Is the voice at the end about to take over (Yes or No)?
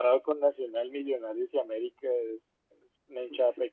Yes